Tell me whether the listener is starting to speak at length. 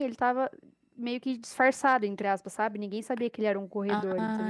Yes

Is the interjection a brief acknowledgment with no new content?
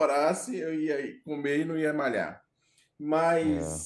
Yes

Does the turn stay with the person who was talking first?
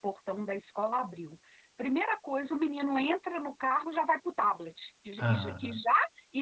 Yes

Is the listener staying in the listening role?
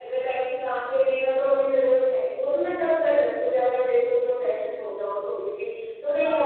No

